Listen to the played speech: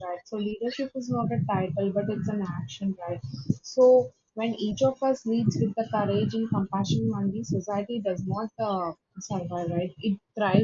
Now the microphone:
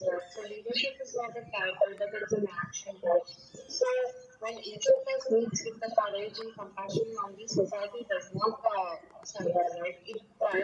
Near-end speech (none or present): none